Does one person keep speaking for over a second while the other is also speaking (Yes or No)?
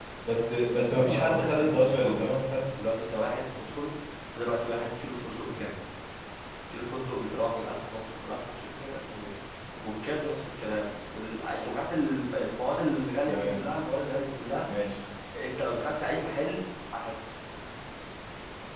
Yes